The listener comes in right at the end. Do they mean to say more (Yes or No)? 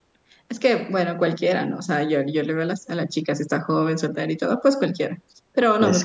No